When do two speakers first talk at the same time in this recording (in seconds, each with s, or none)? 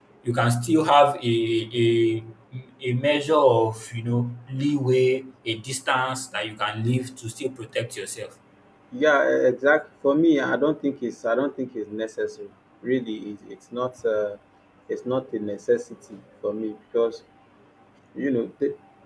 none